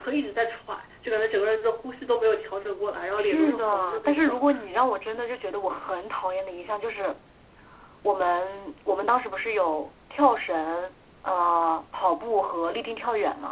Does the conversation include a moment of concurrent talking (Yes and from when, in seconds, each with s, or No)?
Yes, from 3.2 s